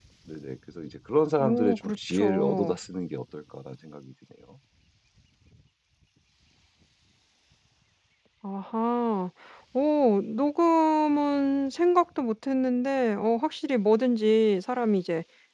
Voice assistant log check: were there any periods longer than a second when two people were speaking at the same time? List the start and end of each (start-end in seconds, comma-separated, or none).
1.4-2.8